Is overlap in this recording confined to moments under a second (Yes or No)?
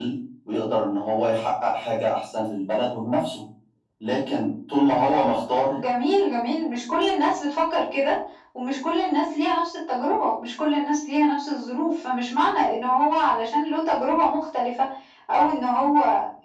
Yes